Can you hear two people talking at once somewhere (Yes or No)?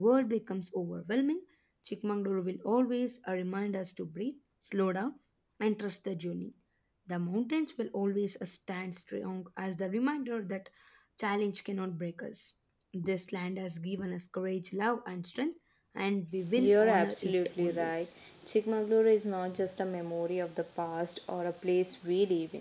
Yes